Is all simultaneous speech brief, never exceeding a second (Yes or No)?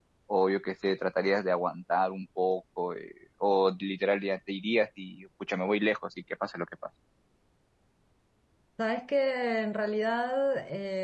Yes